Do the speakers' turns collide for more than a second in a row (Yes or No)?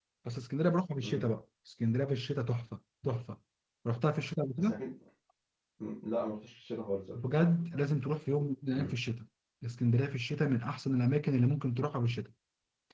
No